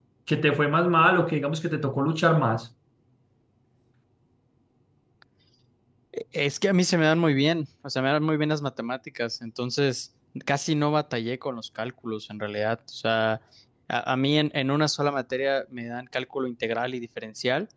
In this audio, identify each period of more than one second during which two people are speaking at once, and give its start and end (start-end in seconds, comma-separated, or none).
none